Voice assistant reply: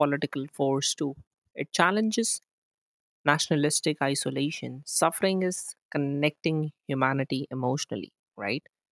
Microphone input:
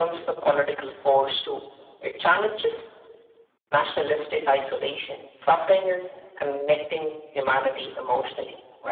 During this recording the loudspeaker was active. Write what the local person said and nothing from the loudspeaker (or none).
none